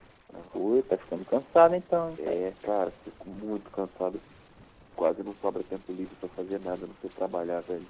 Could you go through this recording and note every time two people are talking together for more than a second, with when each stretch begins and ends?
none

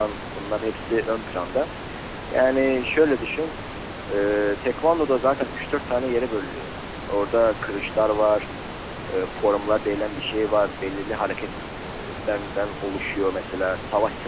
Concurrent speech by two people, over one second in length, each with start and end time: none

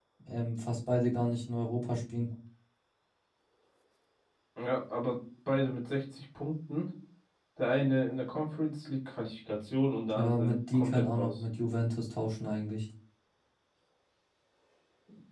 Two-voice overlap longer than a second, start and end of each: 10.2-11.4

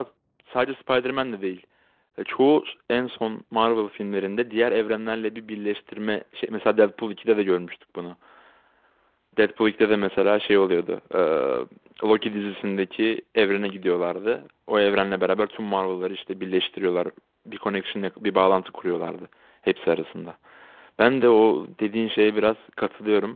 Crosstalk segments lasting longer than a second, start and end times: none

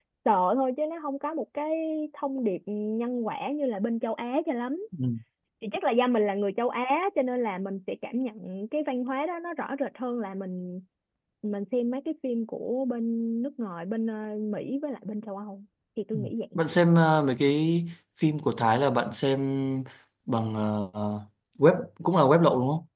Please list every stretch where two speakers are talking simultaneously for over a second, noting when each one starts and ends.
none

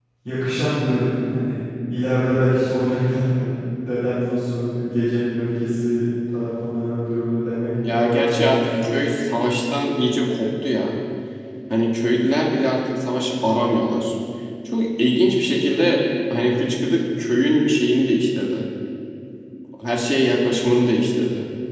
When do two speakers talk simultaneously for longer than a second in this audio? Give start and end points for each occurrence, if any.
7.8-9.1

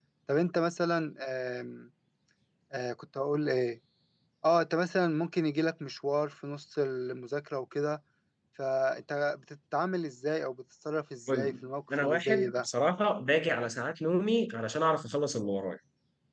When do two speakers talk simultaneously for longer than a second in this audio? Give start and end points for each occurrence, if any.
11.3-12.7

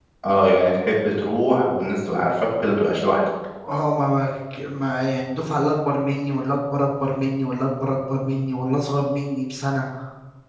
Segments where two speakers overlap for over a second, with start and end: none

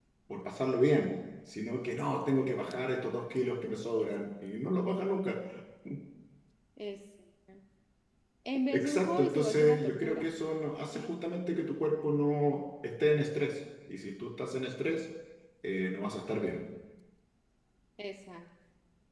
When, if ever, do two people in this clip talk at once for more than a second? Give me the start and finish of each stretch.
8.7-10.3

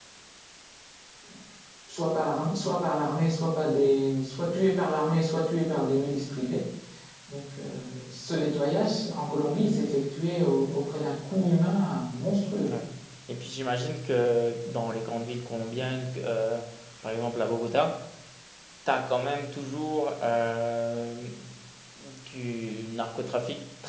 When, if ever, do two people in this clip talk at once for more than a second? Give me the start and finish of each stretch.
none

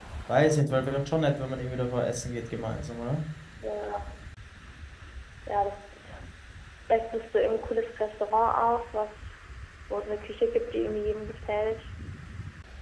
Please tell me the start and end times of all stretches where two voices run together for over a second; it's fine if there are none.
none

